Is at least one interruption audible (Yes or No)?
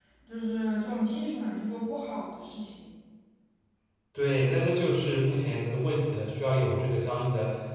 No